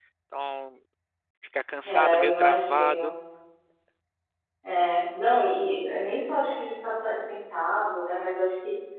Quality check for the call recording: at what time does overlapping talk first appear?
2 s

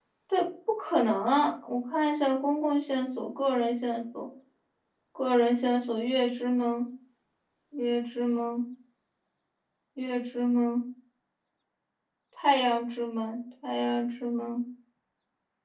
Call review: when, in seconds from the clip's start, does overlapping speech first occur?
none

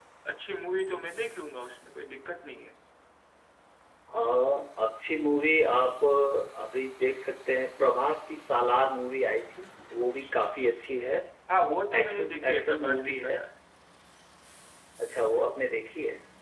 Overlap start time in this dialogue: 12 s

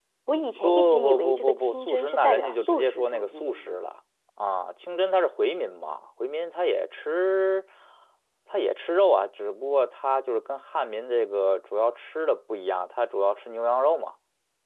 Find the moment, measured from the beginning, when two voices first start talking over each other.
1 s

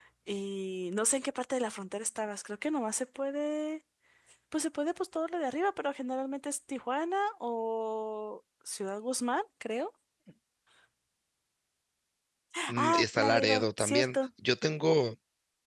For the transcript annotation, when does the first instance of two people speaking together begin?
13 s

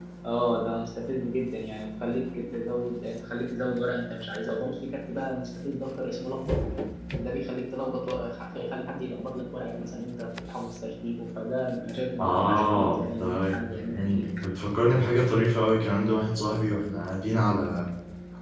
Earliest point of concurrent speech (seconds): 12 s

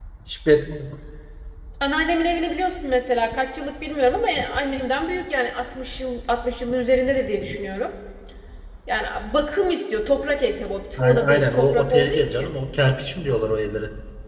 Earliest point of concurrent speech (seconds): 11 s

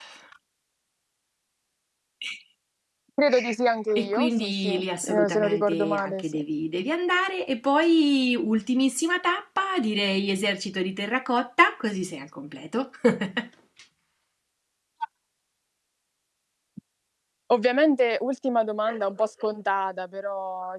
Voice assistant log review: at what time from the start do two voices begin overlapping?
4 s

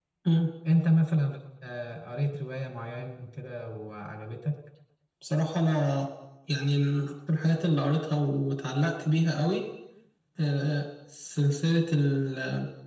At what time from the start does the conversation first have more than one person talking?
none

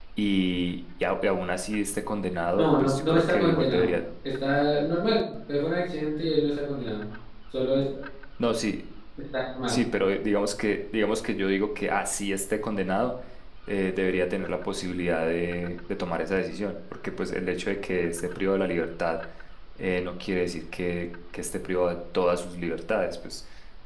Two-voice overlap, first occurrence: 3 s

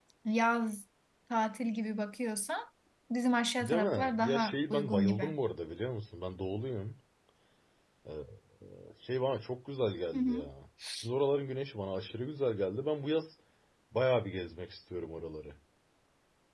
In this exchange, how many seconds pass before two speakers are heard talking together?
4 s

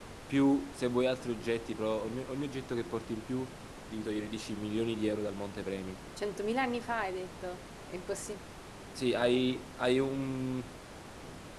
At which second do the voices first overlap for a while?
none

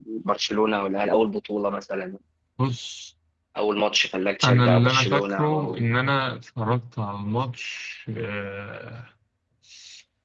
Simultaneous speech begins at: 4 s

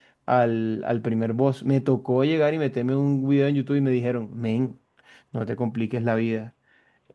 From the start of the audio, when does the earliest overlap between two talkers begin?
none

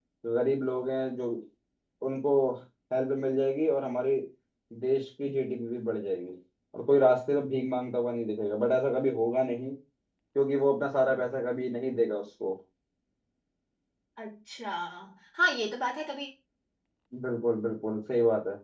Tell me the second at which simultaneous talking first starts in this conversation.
none

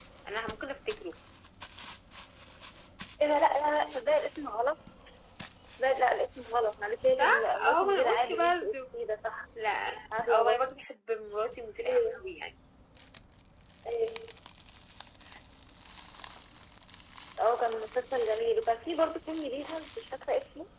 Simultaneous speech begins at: 7 s

